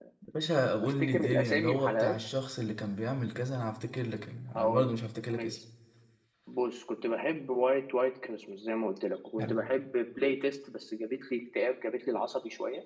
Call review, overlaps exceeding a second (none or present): present